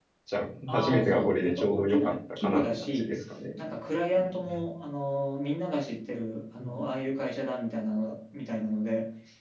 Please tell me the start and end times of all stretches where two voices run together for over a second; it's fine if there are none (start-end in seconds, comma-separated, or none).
0.7-3.2